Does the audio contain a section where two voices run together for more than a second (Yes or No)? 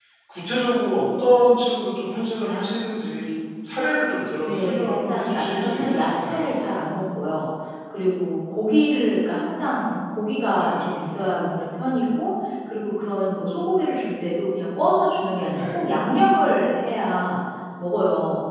Yes